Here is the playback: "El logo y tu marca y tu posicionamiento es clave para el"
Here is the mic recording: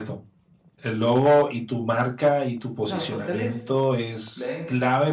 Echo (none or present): present